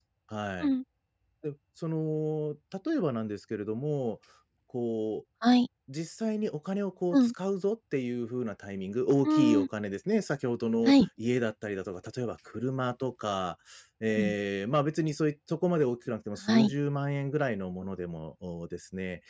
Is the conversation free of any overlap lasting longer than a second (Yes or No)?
Yes